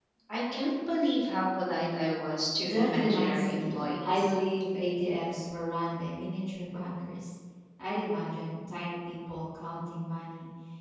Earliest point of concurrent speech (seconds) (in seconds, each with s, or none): 2.6 s